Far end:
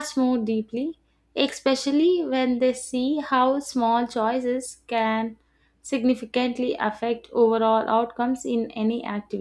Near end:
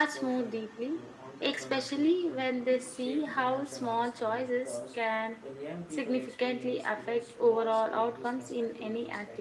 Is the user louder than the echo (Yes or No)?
No